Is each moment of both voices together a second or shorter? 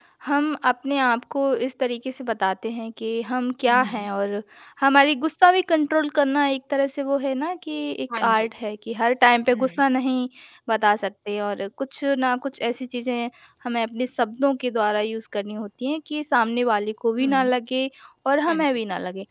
Yes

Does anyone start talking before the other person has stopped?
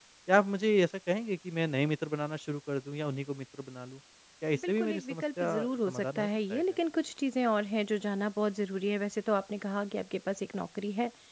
Yes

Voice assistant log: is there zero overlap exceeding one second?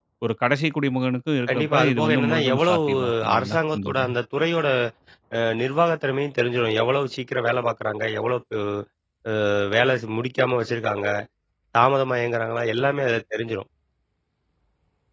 No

